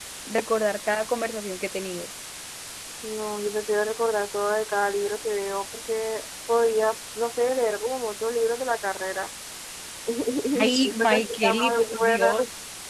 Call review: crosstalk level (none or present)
present